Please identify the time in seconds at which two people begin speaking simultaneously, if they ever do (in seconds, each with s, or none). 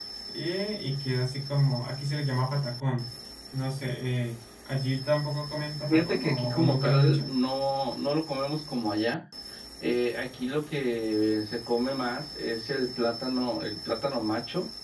5.9 s